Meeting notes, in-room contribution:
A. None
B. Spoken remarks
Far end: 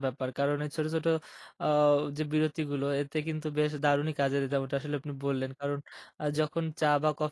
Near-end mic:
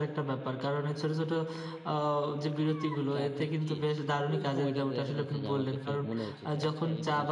B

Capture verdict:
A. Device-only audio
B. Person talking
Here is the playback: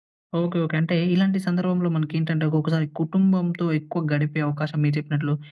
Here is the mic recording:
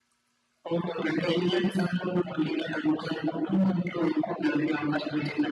A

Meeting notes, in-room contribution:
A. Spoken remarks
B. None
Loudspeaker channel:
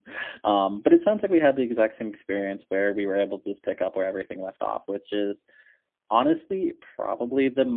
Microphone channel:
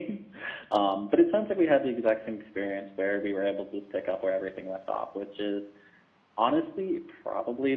B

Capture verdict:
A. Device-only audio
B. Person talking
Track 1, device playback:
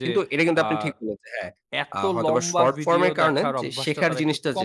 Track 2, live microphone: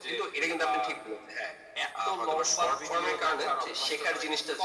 A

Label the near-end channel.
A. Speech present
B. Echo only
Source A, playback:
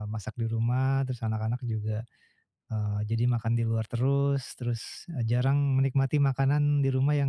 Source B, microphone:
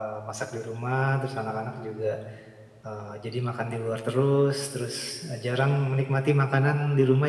B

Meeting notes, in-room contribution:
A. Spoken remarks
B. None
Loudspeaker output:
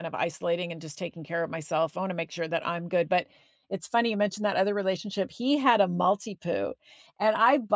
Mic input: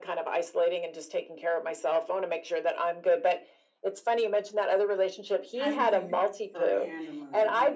A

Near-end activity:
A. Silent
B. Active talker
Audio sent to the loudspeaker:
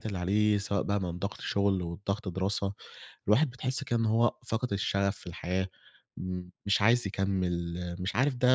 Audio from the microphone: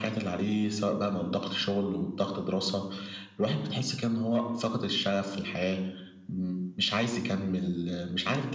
A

